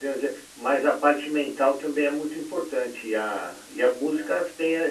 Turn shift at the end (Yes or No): No